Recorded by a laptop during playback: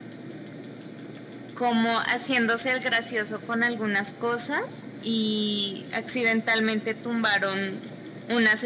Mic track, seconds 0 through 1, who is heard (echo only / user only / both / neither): neither